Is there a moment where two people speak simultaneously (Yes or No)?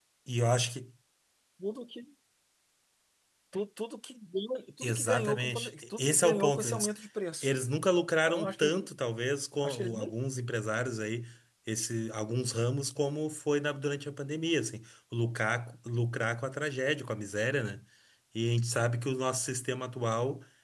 Yes